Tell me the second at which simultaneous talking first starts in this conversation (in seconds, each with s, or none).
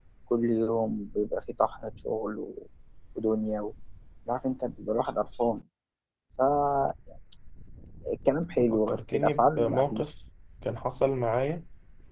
8.7 s